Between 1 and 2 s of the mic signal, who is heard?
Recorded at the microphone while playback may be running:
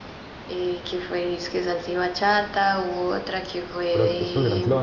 echo only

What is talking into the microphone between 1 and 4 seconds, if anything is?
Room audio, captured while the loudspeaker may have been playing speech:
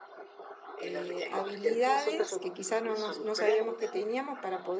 both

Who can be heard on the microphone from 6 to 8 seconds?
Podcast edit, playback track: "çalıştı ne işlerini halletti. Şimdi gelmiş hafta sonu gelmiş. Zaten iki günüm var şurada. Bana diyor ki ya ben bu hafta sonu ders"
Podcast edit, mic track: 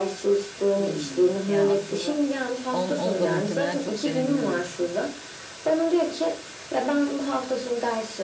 echo only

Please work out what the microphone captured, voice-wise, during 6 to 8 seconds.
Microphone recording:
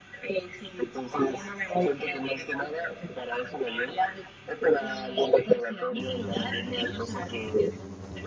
echo only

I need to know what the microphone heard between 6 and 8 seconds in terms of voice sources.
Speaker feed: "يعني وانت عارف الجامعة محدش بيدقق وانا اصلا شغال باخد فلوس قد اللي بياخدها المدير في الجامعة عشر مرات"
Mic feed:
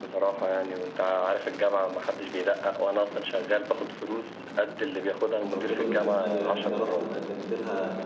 both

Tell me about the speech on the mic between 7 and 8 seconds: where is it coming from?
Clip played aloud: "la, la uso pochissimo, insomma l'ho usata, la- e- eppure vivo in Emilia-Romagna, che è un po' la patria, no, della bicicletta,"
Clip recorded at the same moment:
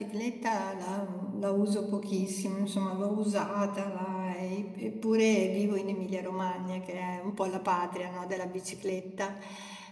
echo only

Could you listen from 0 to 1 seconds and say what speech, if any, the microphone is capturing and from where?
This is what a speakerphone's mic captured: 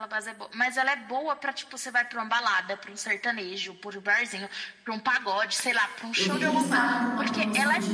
echo only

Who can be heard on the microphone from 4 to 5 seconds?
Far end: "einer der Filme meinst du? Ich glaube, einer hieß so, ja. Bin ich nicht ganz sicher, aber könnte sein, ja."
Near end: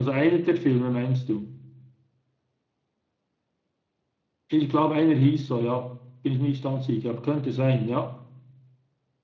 echo only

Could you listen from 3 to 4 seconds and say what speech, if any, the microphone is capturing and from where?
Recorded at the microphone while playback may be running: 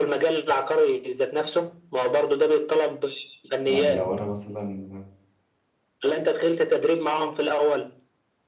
both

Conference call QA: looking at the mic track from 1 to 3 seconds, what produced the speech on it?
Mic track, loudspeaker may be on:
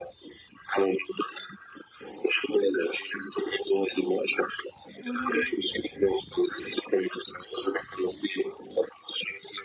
echo only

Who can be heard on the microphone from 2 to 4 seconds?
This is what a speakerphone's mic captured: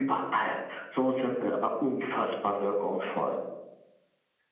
echo only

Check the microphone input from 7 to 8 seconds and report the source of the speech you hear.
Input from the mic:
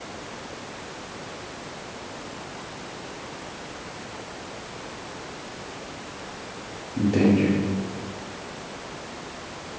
user only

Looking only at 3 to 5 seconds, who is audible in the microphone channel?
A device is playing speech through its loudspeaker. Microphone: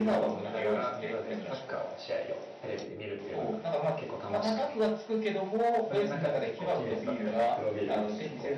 both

